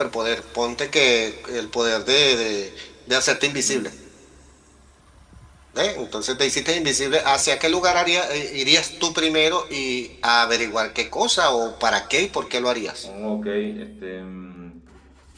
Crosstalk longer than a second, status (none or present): none